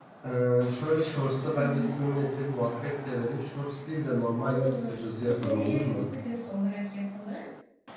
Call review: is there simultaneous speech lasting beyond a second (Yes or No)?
Yes